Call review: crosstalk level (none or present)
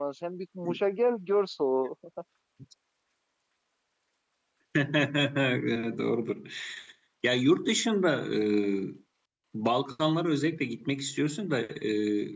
none